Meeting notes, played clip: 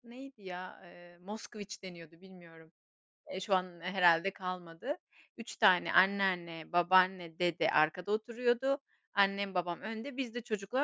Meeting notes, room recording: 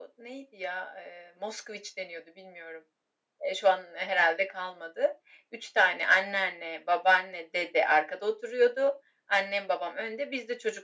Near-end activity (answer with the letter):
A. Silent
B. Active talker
A